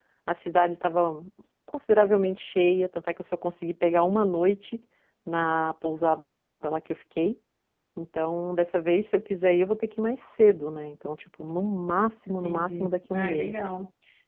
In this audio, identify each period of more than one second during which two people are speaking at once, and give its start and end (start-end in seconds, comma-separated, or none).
12.3-13.5